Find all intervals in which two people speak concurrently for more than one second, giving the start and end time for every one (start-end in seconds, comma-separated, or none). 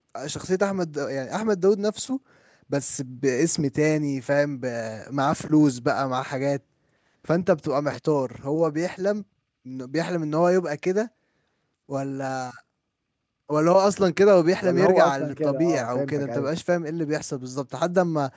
14.6-16.5